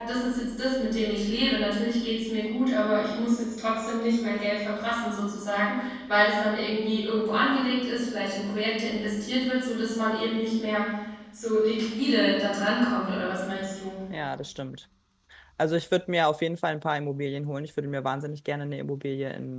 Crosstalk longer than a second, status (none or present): none